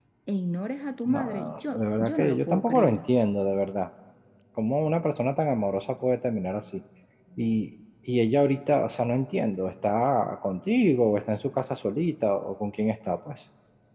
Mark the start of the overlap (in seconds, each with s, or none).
1.1 s